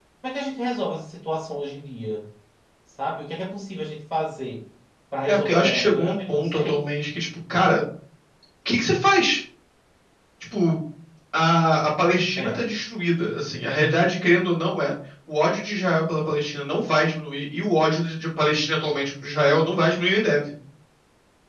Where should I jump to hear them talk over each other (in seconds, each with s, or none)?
5.3 s